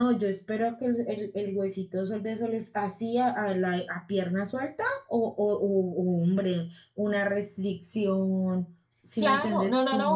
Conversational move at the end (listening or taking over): taking over